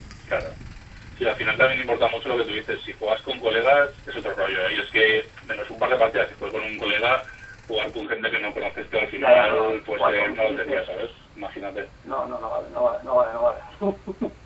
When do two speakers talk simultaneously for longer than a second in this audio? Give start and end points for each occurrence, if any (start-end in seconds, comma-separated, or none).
9.2-11.1